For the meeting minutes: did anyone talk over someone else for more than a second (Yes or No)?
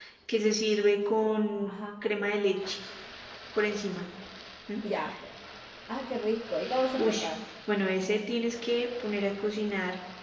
No